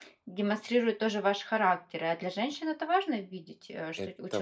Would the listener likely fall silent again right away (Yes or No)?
No